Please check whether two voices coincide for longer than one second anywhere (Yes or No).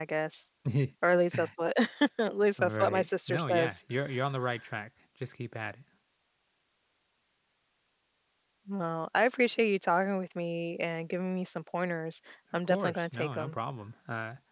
Yes